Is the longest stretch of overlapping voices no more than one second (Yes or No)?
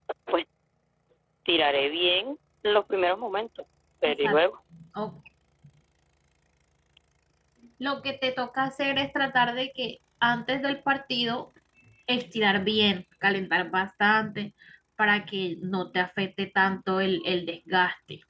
Yes